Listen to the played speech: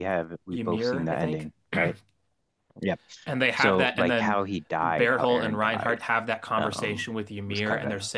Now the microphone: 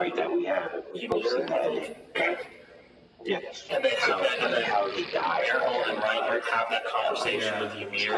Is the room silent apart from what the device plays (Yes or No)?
No